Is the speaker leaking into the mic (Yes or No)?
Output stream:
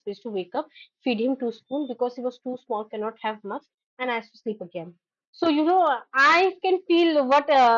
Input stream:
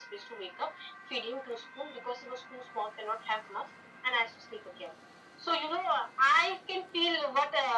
Yes